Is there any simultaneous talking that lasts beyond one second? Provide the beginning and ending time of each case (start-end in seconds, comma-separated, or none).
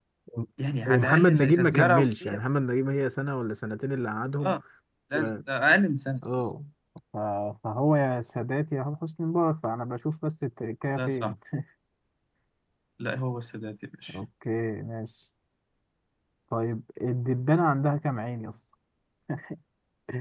0.9-2.4